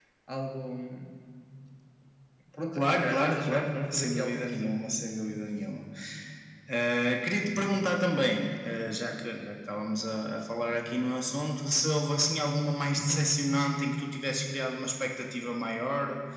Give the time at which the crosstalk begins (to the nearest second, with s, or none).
3 s